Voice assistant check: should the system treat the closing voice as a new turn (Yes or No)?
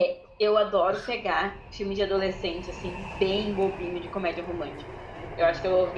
No